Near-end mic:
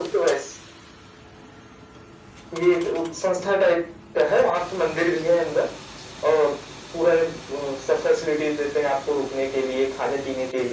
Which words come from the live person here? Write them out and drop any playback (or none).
none